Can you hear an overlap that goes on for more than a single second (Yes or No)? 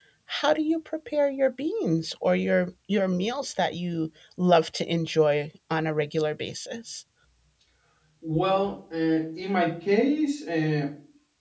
No